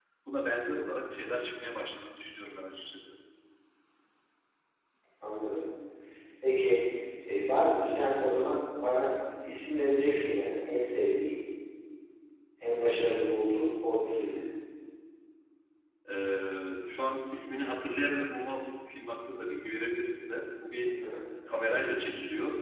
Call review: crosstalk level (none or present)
none